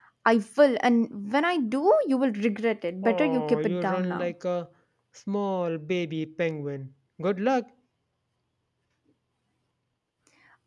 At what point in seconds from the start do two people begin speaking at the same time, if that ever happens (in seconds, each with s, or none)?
3.0 s